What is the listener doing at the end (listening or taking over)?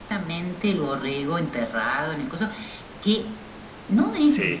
listening